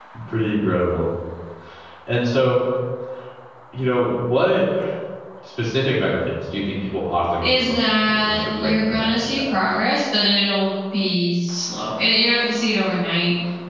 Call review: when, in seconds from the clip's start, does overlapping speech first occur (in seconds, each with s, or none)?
7.4 s